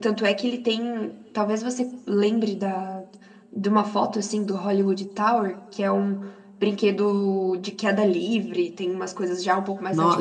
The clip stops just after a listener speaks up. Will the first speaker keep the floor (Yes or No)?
No